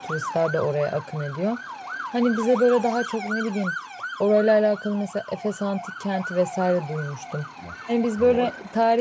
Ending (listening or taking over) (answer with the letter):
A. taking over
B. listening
B